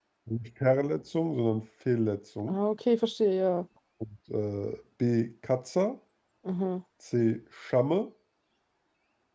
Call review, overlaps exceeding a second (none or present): none